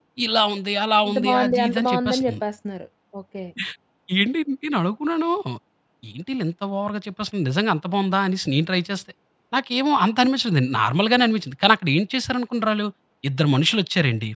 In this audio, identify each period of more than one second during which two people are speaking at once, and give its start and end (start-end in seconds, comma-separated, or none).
1.1-2.4